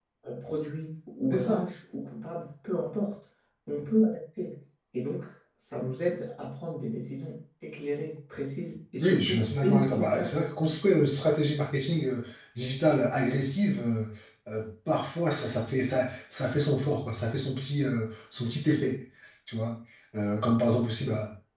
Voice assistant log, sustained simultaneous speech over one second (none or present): present